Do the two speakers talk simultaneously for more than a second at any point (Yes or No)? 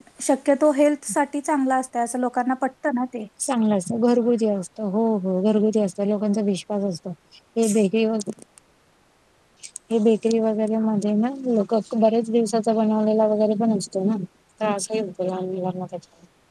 No